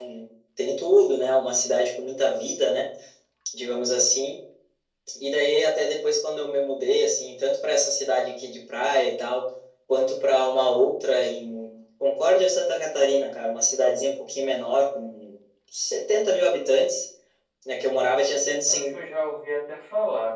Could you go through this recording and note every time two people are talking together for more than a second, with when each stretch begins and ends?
none

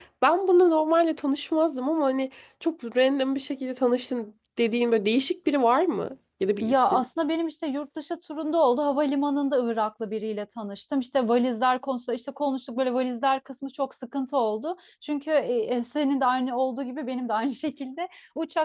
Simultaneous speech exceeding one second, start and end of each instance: none

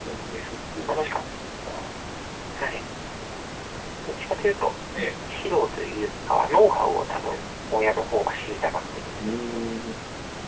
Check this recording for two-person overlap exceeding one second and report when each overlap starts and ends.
none

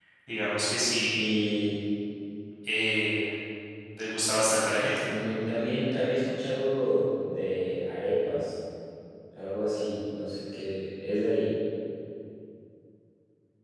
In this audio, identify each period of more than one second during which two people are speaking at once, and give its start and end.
none

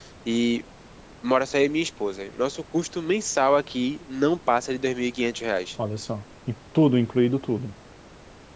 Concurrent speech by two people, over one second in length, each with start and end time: none

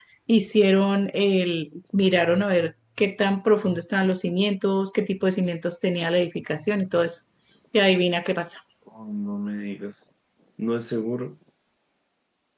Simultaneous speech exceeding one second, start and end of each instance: none

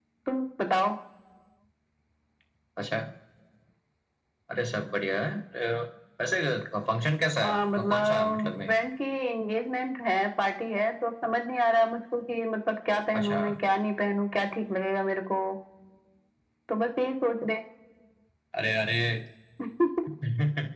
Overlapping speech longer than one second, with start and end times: 7.4-8.7

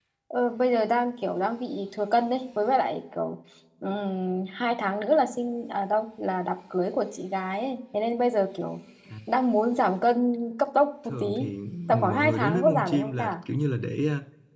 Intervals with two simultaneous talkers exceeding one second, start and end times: 11.9-13.3

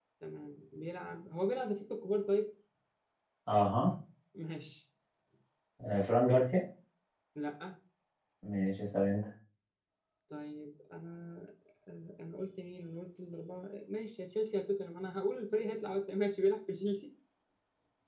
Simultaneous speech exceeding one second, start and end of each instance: none

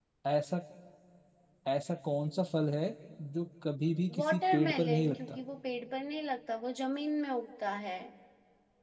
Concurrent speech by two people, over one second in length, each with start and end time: 4.2-5.4

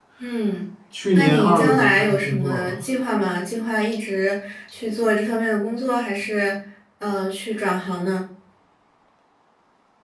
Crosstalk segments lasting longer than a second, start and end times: 1.1-2.8

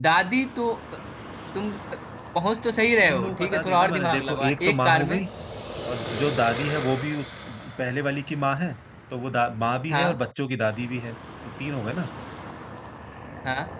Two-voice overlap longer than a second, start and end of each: 3.0-5.2

